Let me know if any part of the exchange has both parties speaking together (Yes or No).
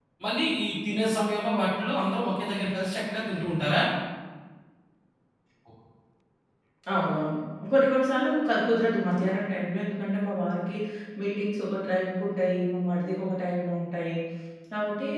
No